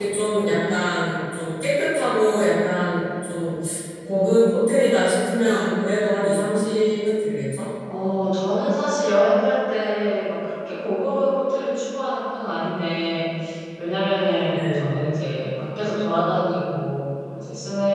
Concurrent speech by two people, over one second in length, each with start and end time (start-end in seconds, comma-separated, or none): none